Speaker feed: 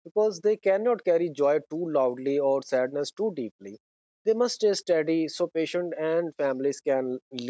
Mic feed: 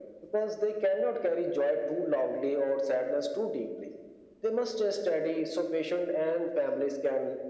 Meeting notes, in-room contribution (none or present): none